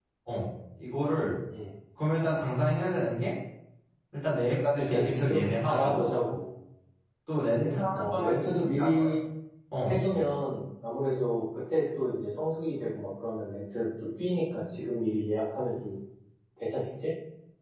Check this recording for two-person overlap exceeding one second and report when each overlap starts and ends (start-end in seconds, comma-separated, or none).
4.8-6.0, 7.5-9.1